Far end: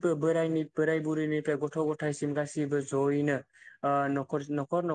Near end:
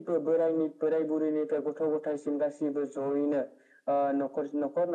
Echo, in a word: present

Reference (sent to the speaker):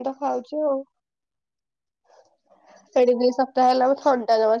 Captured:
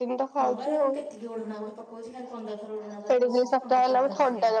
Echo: present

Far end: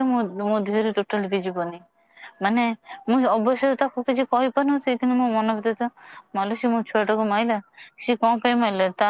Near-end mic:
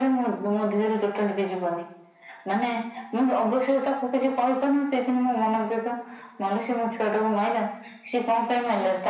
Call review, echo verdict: present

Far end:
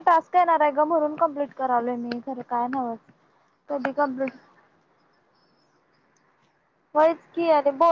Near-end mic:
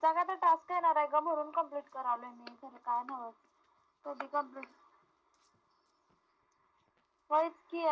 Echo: present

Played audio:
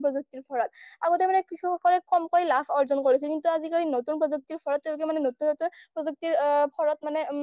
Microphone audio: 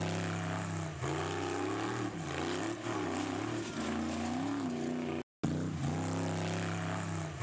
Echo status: none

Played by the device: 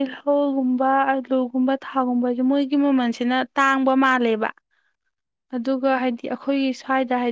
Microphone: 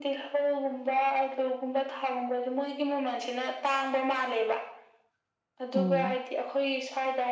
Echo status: present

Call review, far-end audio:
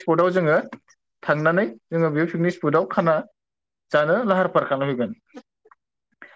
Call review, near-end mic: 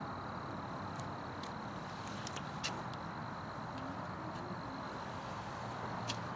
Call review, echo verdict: none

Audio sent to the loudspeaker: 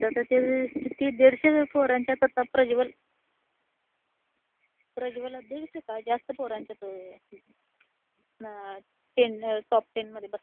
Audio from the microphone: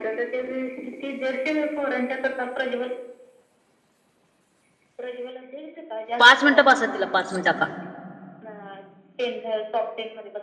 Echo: present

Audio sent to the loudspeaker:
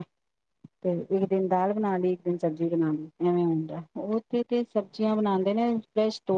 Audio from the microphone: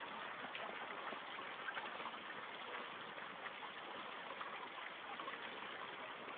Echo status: none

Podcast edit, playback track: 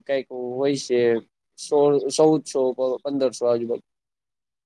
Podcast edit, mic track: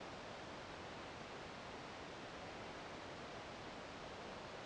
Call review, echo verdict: none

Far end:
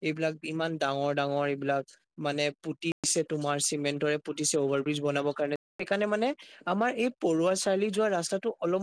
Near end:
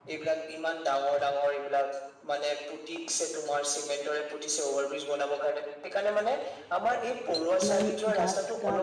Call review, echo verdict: present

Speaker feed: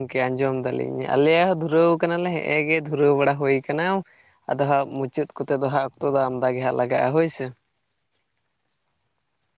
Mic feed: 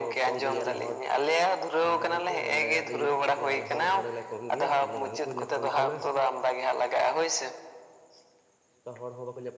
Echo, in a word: present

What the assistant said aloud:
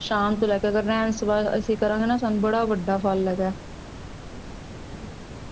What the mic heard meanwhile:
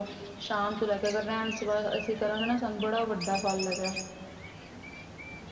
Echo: present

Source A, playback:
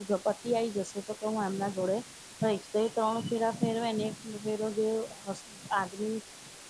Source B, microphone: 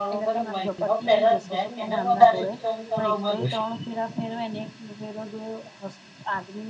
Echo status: present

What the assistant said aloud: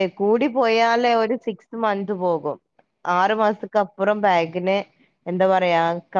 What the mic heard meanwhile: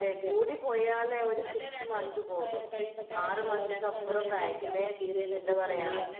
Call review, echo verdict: present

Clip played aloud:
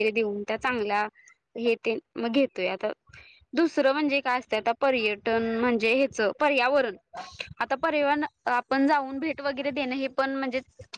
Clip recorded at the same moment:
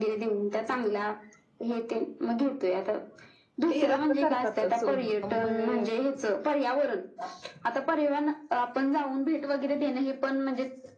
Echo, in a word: present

